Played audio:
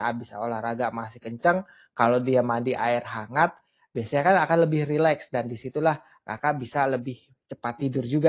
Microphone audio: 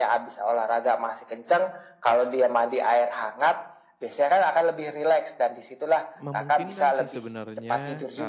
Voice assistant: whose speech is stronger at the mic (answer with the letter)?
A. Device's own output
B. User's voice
A